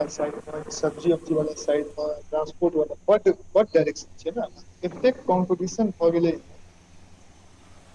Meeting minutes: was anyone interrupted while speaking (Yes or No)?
No